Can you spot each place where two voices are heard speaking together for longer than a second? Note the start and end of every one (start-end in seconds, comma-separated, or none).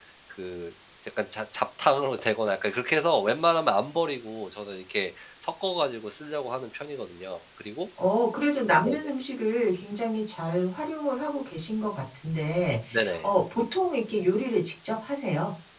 none